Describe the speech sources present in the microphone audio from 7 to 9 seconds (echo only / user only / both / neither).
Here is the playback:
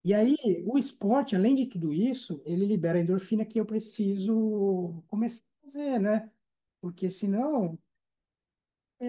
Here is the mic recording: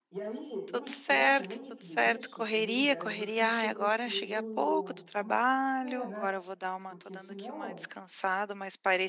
both